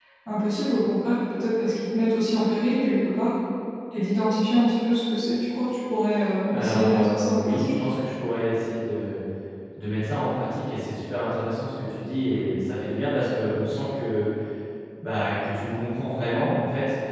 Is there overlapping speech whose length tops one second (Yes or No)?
Yes